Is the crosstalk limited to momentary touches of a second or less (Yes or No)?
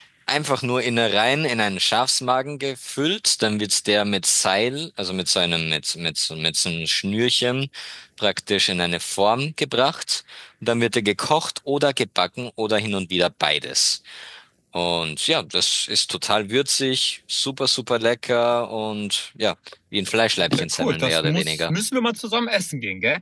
No